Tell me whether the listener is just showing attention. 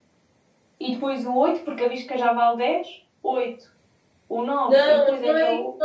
No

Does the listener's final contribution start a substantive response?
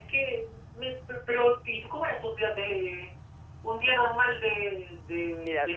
Yes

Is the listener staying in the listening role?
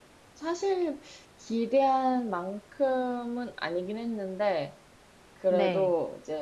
Yes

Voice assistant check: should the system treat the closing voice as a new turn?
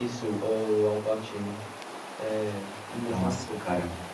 Yes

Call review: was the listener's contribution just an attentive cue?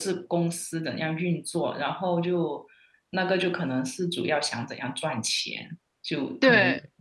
Yes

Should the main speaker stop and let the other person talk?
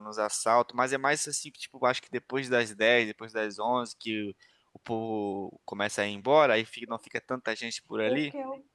Yes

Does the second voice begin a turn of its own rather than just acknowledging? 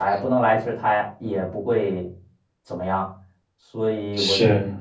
No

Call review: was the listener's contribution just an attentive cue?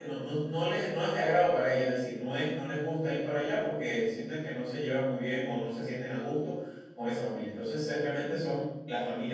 Yes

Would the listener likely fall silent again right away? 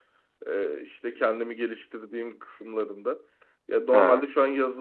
Yes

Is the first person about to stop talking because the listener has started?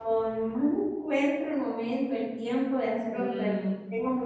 No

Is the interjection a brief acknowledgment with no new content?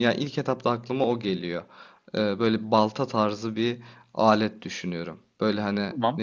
Yes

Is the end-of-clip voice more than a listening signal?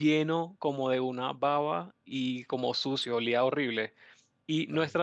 No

